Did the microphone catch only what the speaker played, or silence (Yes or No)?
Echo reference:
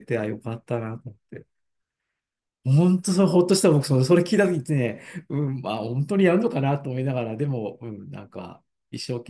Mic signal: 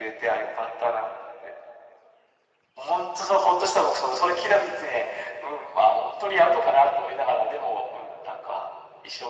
Yes